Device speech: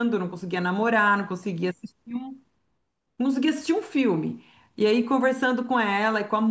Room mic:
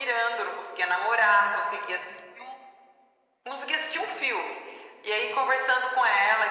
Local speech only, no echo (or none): none